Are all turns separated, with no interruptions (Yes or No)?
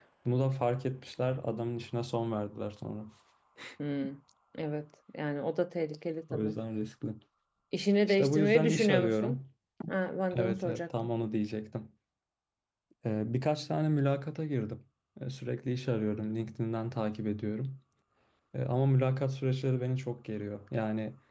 No